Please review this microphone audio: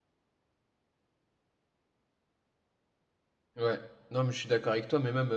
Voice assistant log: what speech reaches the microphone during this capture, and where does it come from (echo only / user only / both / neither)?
user only